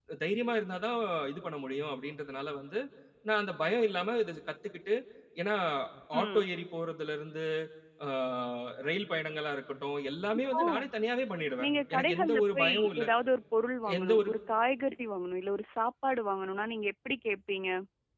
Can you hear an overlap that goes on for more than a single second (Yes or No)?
Yes